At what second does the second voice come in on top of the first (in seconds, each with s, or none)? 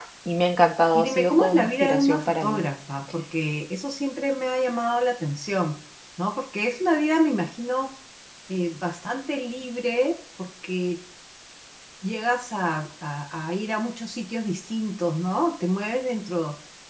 0.9 s